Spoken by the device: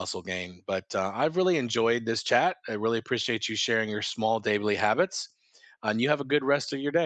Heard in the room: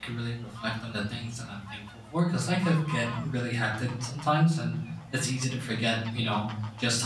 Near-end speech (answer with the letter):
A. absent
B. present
B